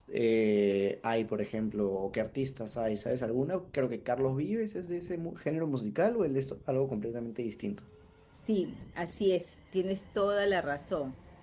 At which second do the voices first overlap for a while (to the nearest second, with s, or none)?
none